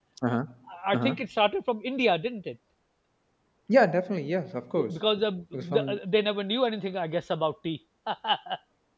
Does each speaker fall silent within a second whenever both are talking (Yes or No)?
Yes